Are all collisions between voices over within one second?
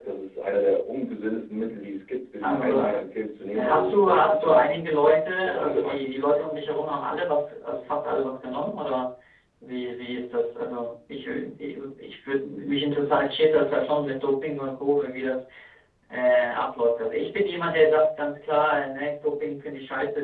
No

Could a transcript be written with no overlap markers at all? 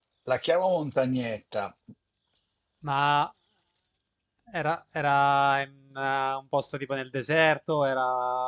Yes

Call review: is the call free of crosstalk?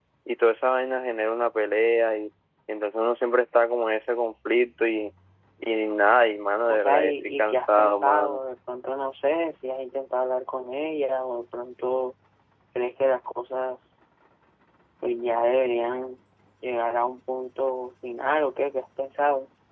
No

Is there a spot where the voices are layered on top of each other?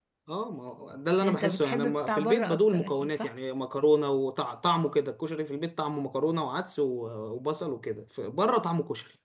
Yes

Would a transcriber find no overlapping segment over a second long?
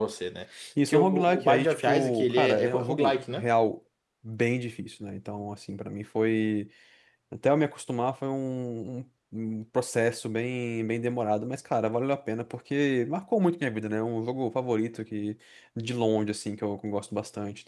No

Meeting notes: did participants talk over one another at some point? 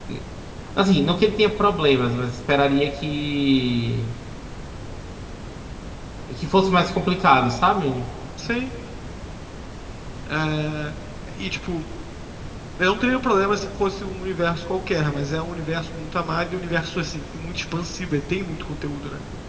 No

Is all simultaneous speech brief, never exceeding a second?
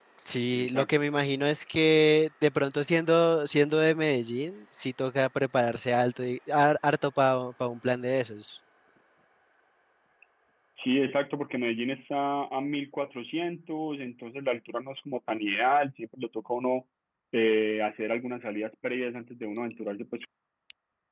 Yes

